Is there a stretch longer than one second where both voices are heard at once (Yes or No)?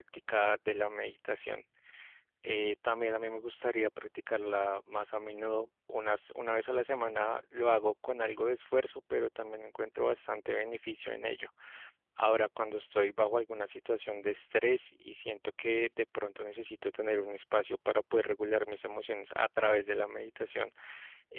No